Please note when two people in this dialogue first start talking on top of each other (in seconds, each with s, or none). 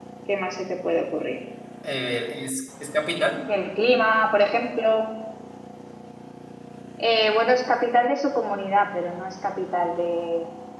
none